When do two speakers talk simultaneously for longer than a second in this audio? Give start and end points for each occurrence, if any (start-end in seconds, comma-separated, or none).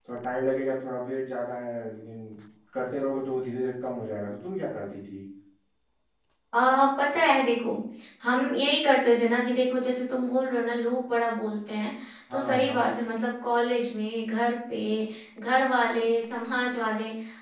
none